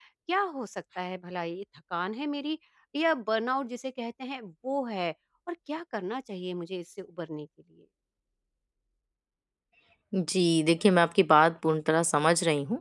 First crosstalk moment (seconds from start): none

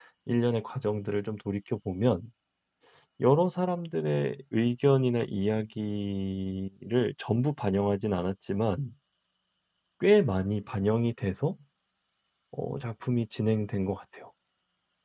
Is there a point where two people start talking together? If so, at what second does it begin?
none

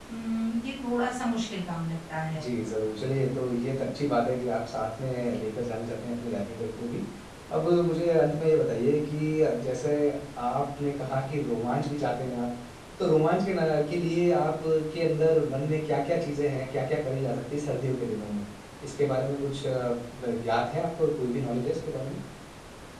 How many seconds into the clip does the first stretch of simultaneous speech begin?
none

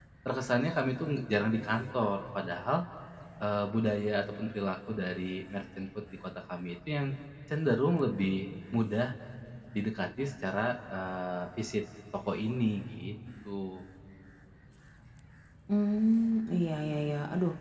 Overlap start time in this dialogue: none

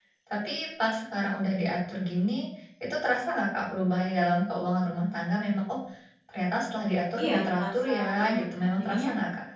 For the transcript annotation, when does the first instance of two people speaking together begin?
7.2 s

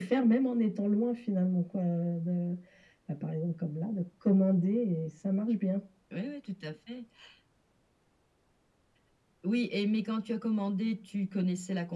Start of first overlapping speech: none

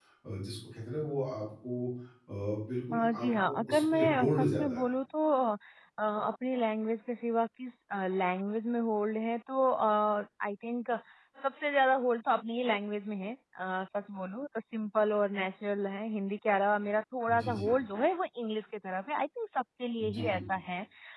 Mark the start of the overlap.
2.9 s

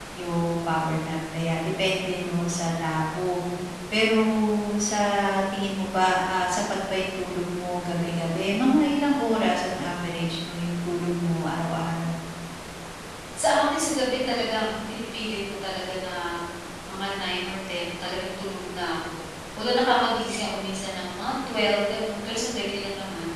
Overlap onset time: none

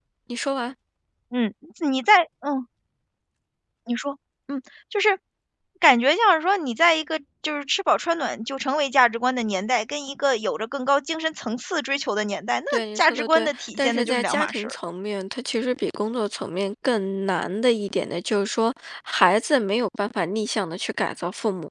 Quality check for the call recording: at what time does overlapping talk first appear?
12.7 s

